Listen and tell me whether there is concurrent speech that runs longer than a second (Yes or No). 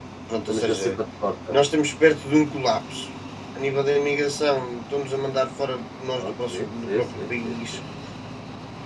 Yes